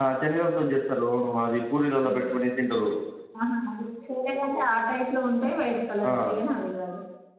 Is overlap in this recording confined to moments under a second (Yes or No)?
Yes